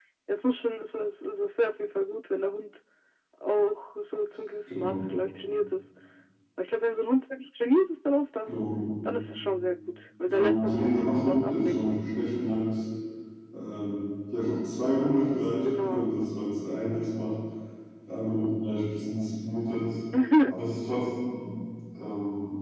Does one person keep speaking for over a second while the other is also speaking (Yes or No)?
Yes